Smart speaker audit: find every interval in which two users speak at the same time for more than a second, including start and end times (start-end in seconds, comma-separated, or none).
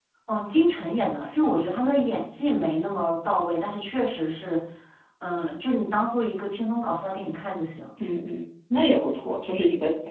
none